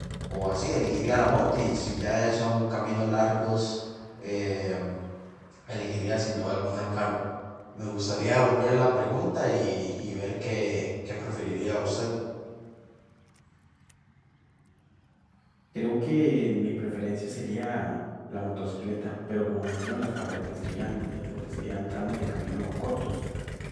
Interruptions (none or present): none